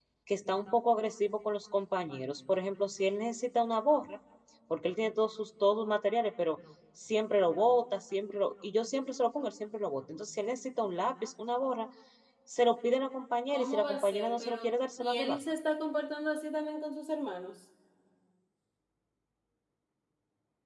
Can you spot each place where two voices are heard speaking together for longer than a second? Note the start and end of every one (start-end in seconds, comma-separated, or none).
13.5-15.4